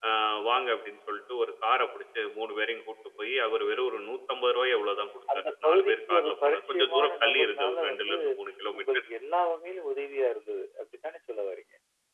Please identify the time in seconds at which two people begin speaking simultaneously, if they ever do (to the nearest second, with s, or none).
5 s